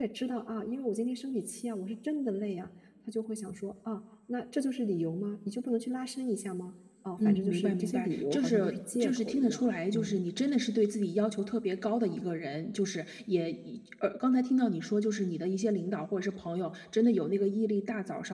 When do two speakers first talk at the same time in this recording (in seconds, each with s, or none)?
7.2 s